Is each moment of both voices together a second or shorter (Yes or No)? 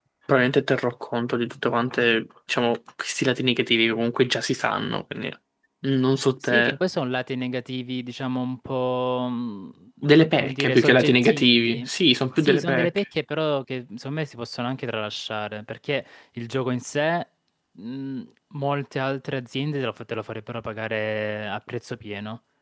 No